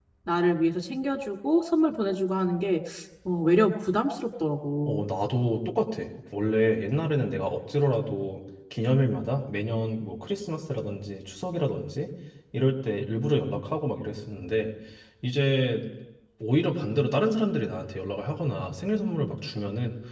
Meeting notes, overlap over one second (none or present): none